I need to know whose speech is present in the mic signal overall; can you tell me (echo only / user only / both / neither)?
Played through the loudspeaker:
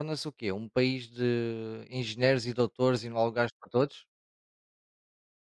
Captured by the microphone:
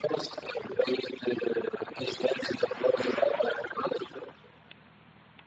echo only